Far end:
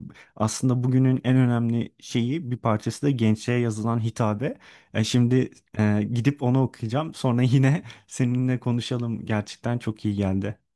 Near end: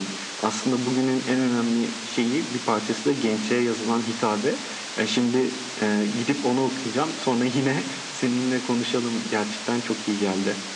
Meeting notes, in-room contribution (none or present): none